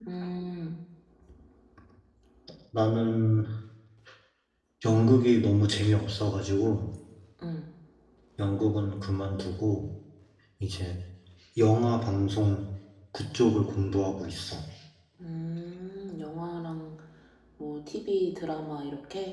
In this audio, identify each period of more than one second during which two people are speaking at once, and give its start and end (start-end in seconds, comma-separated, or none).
none